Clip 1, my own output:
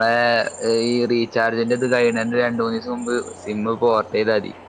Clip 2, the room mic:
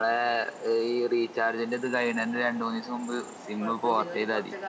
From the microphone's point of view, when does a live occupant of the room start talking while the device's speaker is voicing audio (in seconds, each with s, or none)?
3.6 s